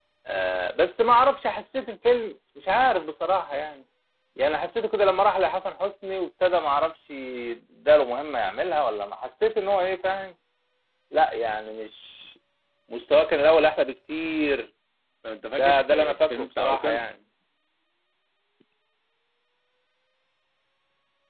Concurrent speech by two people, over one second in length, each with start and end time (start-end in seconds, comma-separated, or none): 15.6-17.0